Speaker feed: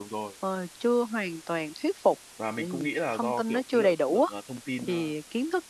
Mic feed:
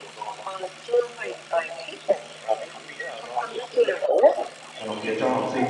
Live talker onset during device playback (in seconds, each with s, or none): 4.8 s